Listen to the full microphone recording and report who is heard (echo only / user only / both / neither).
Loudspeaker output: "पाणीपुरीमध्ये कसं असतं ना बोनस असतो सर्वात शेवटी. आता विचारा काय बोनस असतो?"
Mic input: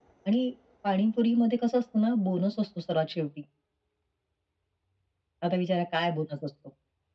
echo only